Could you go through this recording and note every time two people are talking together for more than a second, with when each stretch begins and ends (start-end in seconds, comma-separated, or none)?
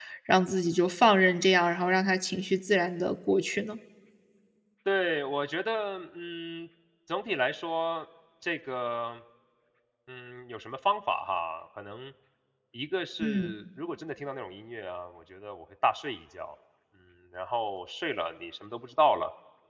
none